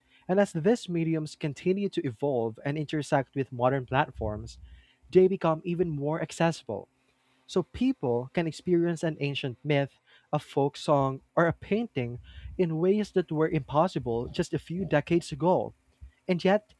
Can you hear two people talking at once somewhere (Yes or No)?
No